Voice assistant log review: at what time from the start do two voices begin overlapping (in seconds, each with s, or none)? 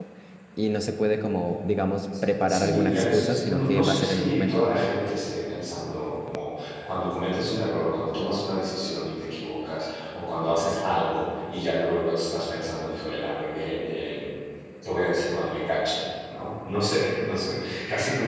2.5 s